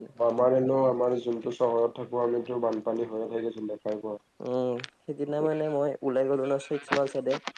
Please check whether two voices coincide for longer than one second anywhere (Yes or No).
No